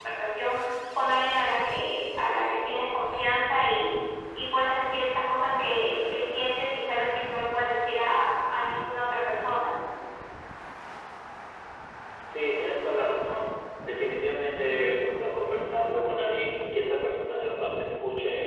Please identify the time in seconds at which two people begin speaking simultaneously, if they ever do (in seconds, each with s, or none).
none